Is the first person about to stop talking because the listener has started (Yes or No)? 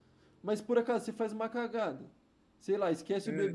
No